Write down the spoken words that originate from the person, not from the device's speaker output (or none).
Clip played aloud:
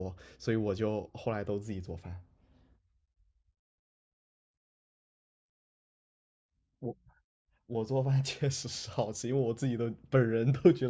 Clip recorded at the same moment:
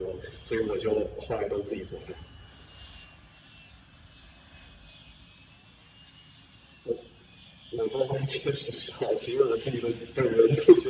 none